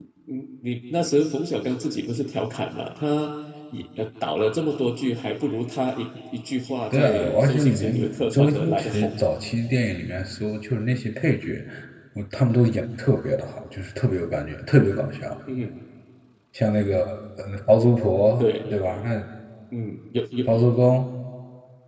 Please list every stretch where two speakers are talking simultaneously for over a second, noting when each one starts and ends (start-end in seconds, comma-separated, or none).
6.9-9.2